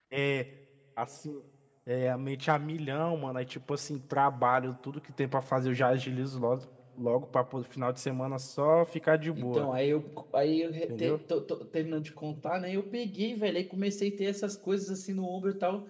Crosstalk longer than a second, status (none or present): none